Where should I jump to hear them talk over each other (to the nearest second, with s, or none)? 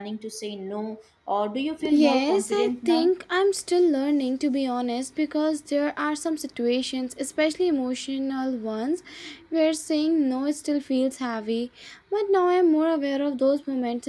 2 s